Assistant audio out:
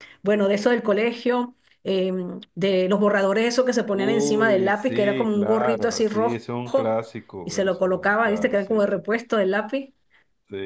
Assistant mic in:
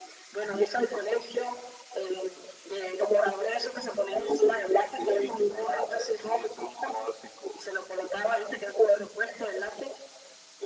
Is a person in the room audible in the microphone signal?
No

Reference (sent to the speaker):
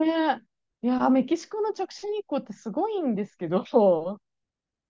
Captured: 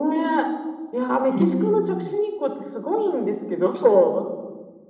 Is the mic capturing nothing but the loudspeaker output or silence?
No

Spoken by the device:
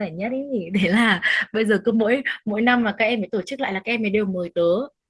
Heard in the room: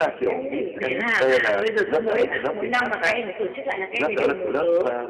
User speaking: Yes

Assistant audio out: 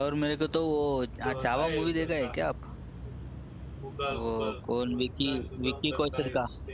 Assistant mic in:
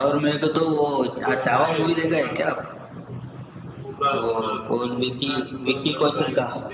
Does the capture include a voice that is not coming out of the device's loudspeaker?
No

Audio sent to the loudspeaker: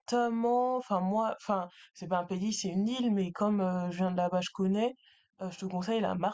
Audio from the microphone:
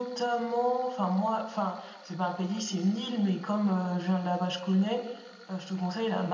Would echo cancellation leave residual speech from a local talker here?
No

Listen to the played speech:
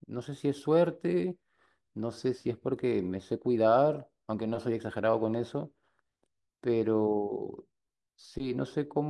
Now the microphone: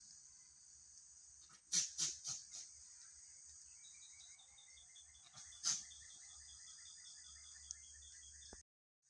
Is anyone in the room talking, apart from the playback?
No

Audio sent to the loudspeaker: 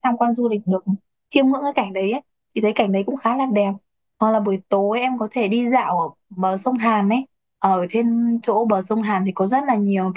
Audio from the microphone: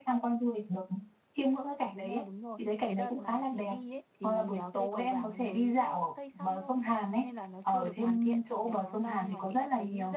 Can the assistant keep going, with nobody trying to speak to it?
No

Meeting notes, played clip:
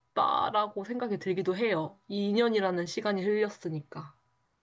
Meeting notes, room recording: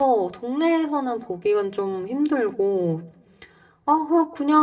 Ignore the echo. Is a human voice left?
Yes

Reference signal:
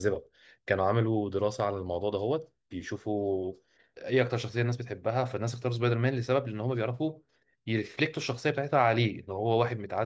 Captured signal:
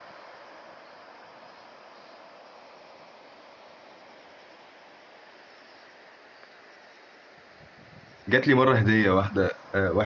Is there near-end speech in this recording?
Yes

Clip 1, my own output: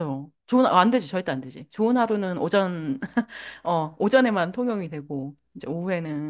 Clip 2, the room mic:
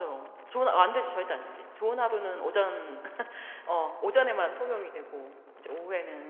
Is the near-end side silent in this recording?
Yes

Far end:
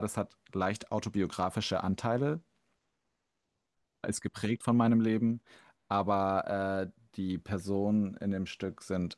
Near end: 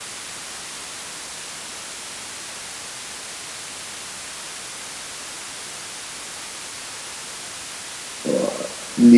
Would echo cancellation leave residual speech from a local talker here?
Yes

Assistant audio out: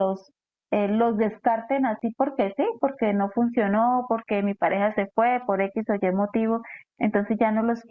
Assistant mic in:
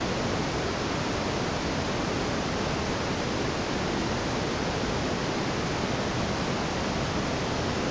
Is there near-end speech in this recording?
No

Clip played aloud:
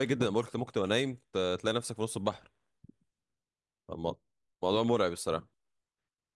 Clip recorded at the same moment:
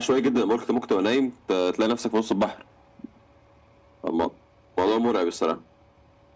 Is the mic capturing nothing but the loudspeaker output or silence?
Yes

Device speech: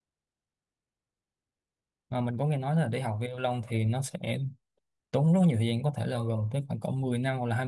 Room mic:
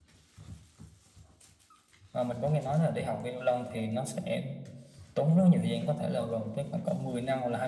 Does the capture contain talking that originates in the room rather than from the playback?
No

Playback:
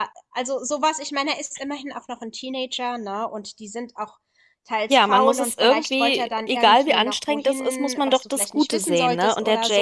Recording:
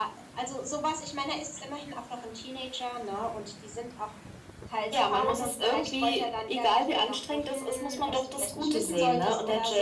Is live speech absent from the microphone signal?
Yes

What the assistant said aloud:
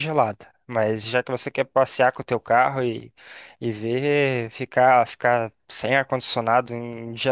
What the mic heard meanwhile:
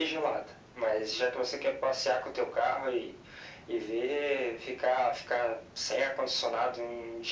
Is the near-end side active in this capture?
No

